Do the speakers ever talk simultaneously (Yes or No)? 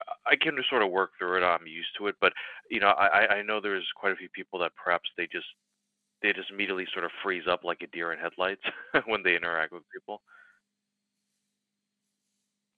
No